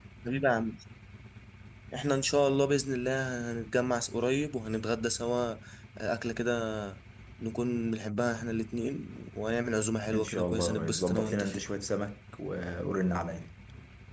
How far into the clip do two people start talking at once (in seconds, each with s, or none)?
10.1 s